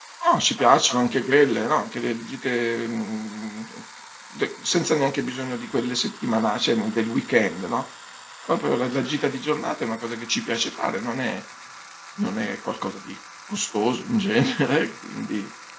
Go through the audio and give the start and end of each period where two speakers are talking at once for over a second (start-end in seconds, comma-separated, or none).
none